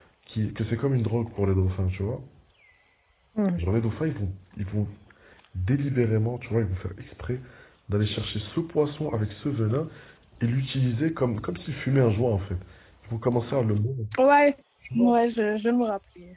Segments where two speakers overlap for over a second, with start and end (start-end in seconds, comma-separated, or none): none